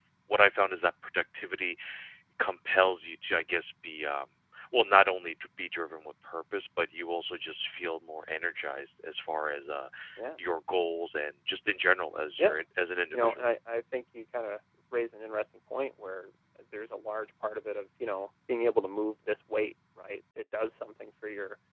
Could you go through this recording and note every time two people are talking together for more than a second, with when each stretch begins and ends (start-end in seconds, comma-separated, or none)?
none